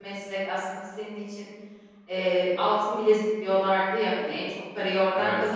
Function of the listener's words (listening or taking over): listening